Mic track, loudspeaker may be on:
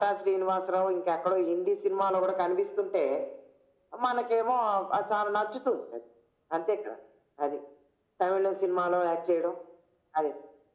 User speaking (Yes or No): No